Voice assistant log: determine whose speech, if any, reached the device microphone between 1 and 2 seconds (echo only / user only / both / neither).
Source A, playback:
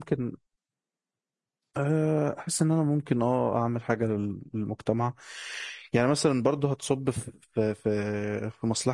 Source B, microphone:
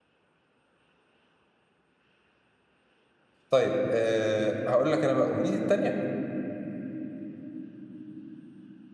neither